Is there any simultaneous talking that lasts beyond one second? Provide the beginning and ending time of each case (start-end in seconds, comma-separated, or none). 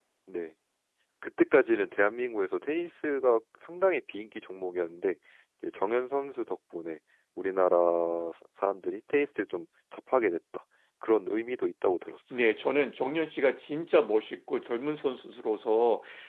none